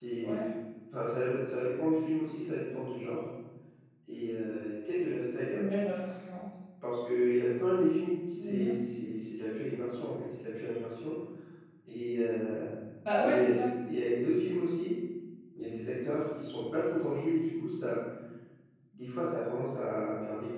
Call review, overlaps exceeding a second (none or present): none